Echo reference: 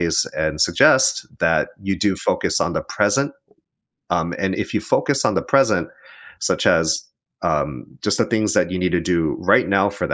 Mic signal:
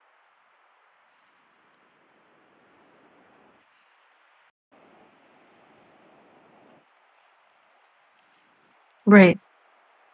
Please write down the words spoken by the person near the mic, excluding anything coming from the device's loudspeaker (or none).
Right,